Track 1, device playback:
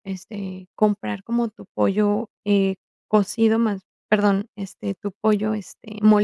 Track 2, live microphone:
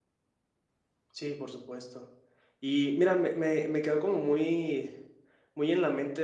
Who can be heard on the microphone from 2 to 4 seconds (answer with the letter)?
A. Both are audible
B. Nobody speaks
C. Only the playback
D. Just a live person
D